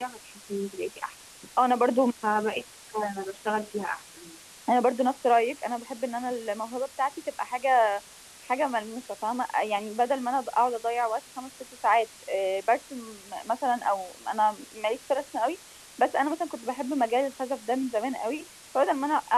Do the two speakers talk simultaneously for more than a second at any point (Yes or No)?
No